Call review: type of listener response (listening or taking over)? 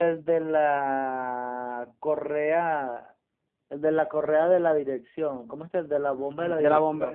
taking over